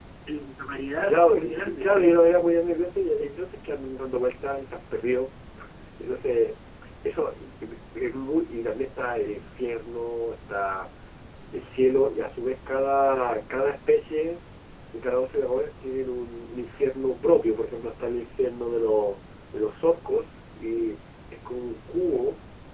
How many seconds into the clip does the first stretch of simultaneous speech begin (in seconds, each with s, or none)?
1.1 s